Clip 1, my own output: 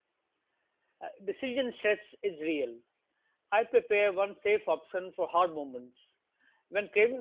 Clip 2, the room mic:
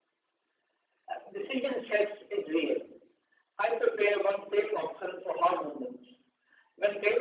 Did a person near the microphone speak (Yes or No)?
No